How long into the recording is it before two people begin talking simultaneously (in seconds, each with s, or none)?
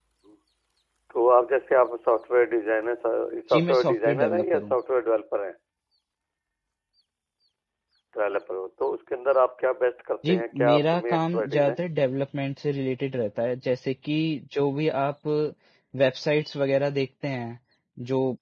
3.5 s